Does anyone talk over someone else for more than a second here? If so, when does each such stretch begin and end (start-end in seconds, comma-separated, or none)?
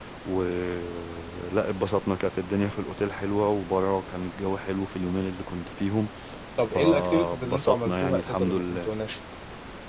6.7-8.9